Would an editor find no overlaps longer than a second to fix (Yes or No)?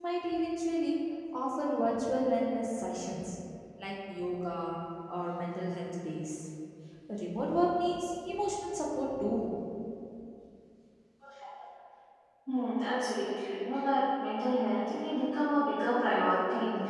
Yes